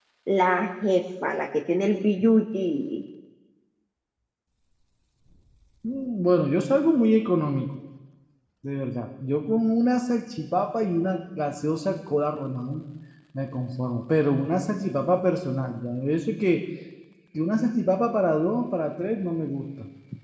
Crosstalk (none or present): none